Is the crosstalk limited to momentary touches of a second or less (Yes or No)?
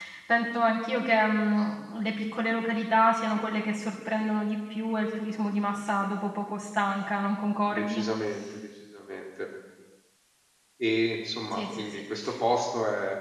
Yes